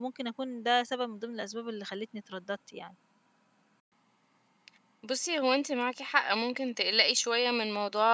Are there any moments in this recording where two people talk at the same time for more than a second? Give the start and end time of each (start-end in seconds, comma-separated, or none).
none